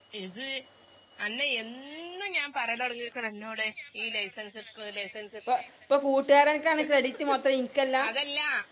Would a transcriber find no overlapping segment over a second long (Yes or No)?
Yes